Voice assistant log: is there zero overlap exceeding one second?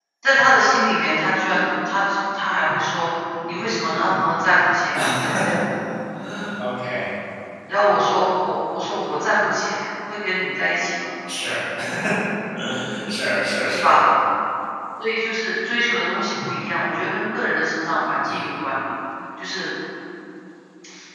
Yes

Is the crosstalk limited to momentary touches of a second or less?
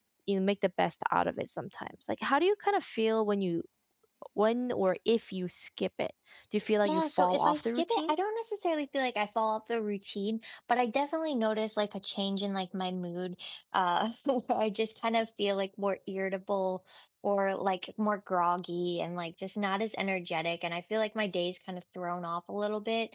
No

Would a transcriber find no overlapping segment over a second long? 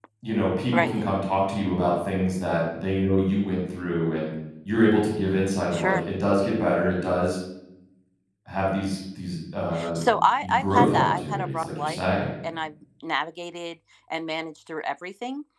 No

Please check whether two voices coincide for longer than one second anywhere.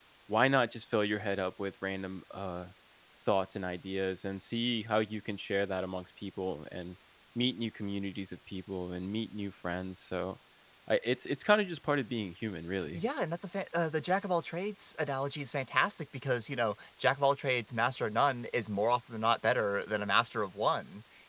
No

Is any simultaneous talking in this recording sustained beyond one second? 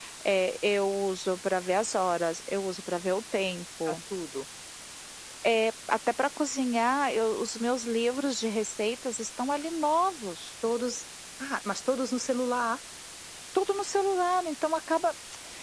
No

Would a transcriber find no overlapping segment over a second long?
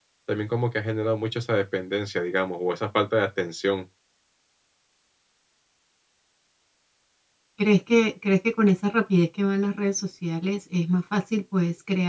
Yes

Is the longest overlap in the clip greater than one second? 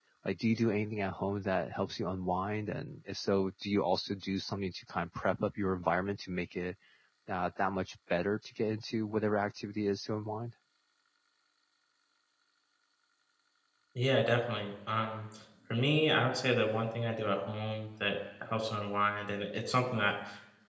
No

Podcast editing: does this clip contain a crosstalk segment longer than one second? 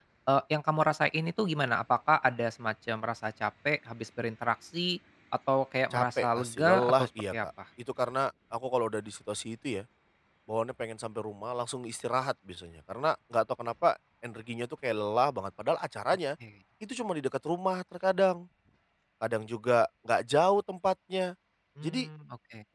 Yes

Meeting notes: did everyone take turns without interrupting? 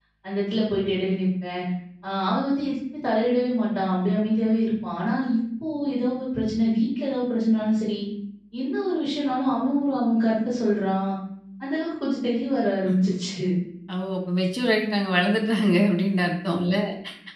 Yes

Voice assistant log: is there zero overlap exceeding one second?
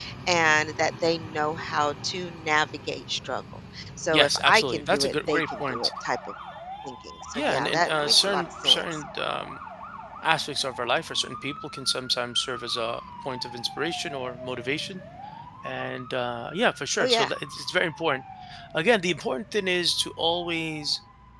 No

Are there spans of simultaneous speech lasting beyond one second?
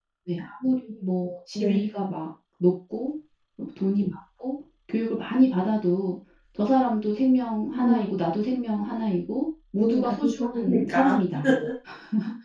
Yes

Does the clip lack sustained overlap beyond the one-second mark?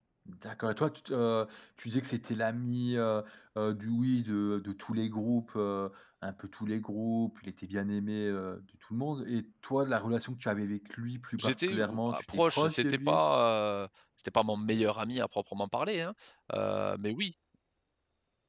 No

